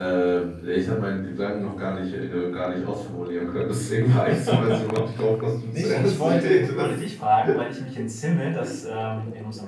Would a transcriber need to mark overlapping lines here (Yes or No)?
Yes